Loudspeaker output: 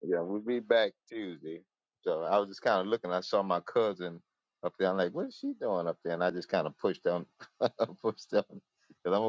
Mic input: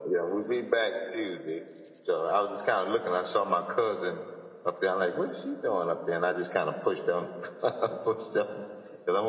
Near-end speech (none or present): none